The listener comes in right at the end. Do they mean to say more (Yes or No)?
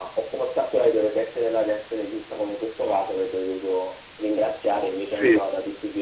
No